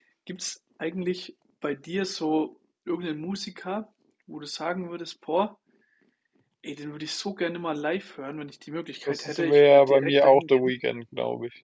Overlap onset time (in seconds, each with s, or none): 9.1 s